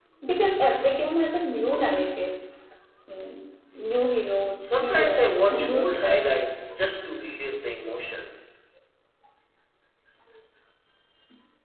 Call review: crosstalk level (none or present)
present